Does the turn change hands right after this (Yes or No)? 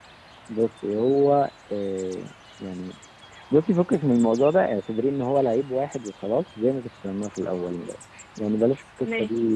No